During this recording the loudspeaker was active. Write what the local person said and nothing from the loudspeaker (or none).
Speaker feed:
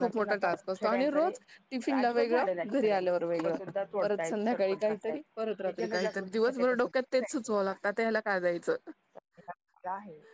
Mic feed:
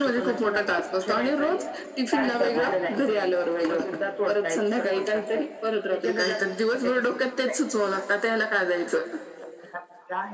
चालतं मग